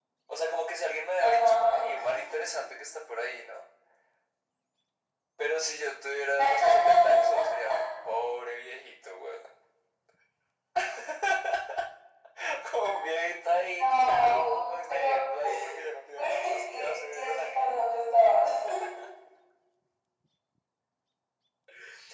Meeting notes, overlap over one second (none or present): present